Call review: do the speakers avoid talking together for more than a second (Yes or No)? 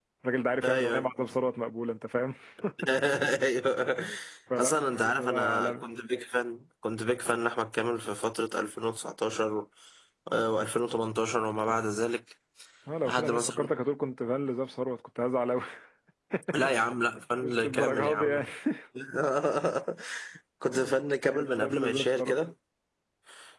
No